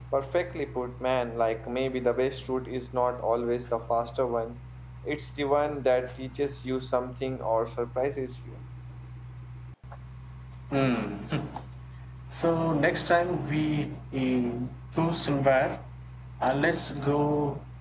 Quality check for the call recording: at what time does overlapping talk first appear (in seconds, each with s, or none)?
none